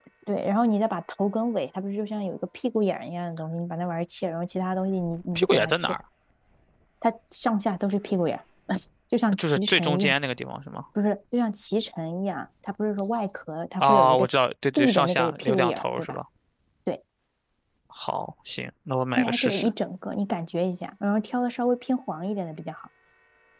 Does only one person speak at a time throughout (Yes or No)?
No